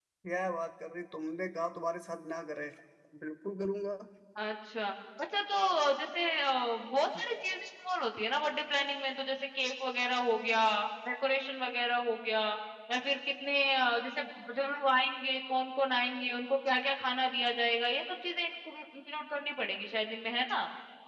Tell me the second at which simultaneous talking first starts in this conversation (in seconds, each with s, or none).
none